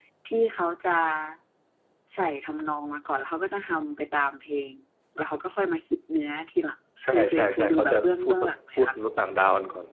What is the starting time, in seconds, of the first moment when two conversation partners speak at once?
7.0 s

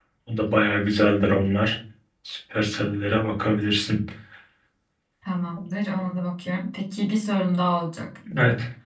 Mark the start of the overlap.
none

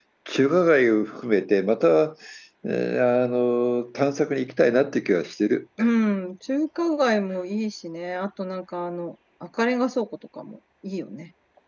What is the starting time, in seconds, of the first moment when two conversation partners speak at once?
none

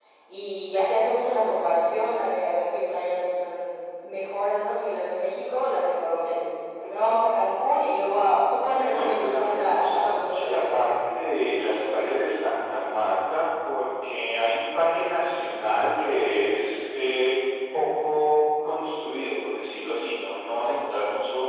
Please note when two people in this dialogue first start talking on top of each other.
8.8 s

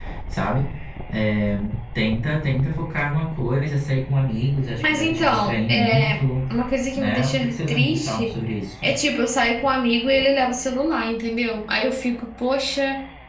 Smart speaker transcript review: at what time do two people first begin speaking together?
4.8 s

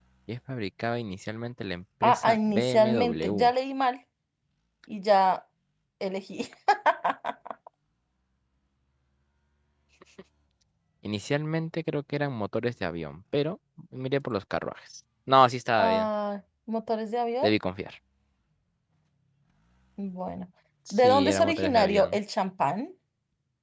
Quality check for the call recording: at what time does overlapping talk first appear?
2.0 s

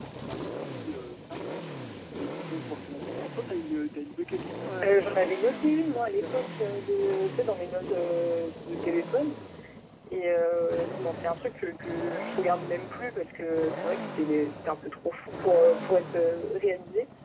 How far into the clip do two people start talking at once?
4.8 s

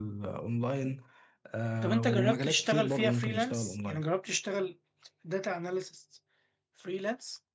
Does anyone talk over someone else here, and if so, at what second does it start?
1.8 s

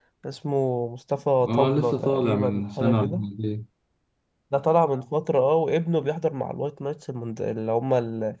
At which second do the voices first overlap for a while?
1.3 s

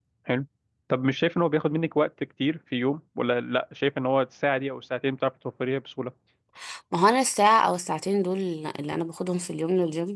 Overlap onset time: none

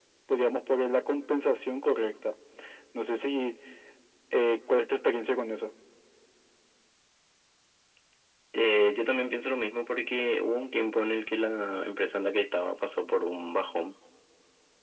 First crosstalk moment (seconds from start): none

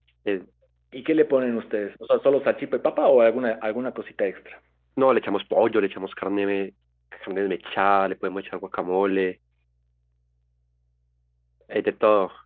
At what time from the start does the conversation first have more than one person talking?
none

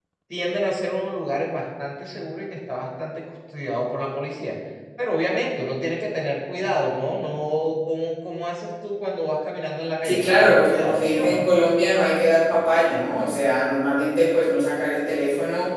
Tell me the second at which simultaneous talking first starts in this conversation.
10.0 s

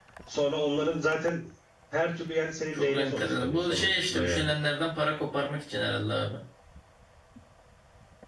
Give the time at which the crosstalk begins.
2.7 s

